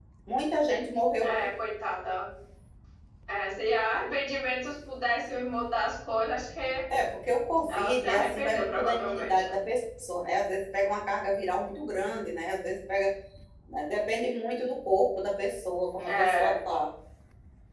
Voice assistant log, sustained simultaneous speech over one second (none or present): present